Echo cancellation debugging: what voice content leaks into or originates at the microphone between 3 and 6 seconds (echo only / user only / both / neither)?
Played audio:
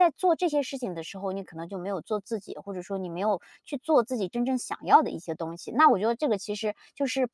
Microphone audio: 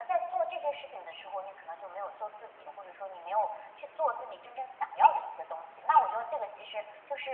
echo only